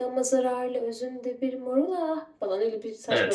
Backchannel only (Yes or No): No